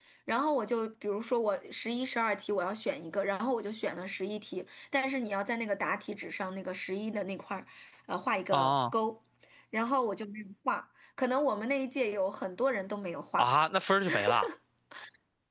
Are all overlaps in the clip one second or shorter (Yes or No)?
Yes